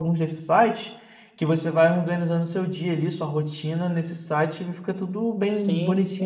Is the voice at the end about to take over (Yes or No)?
Yes